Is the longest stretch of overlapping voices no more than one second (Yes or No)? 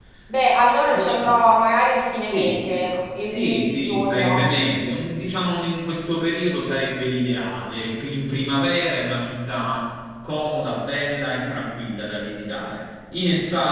No